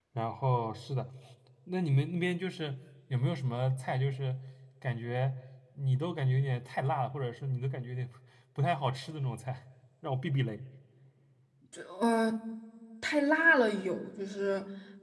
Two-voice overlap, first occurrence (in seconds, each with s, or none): none